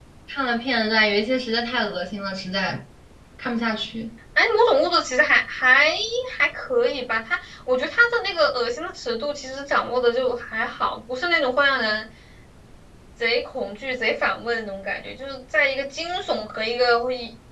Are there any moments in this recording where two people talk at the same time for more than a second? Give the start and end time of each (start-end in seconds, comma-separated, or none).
none